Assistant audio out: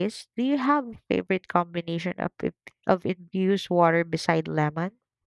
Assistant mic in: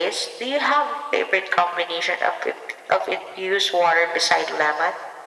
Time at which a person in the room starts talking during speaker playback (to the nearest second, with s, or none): none